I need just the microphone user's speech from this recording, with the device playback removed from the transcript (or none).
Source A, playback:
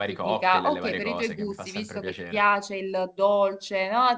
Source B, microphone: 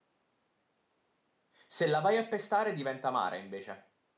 Se la vai a pestare diventa amara invece.